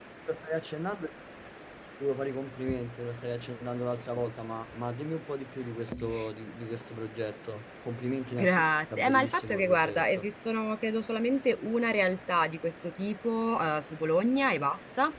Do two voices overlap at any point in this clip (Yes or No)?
Yes